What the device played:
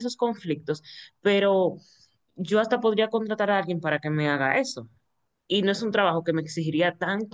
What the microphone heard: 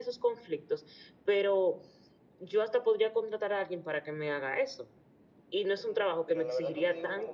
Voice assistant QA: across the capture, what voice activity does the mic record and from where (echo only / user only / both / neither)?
both